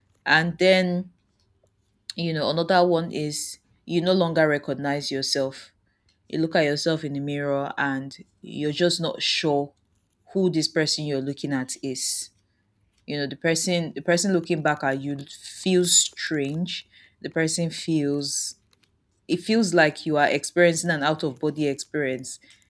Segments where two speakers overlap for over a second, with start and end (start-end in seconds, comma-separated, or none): none